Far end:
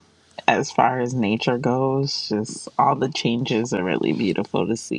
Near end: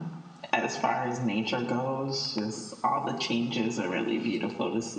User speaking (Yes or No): No